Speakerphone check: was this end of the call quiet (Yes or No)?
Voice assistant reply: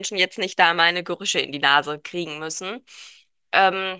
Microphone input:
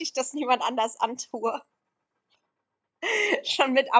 No